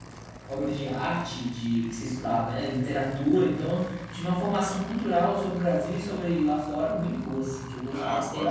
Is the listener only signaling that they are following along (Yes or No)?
No